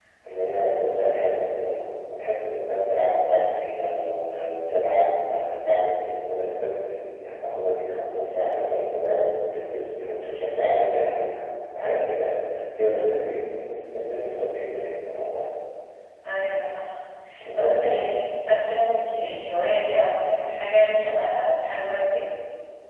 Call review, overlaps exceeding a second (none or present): none